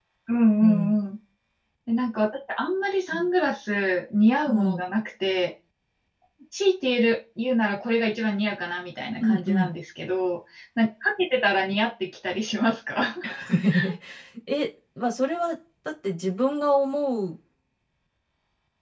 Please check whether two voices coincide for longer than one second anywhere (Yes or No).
No